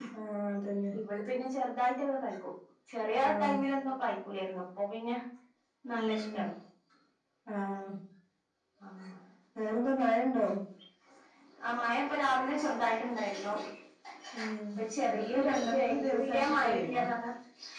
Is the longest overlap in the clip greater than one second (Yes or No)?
Yes